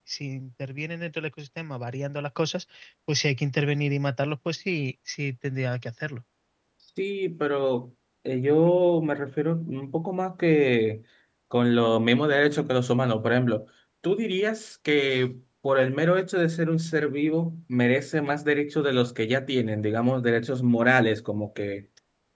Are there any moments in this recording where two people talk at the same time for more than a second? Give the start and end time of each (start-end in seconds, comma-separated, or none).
none